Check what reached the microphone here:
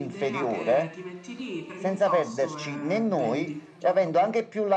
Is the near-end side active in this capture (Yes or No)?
Yes